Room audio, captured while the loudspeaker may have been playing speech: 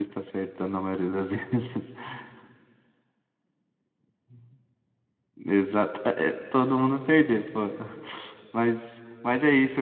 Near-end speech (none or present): present